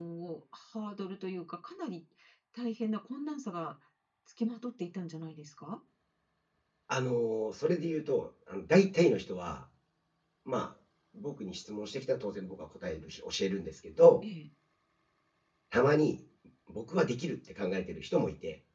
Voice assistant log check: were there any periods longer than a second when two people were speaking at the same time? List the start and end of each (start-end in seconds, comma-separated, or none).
none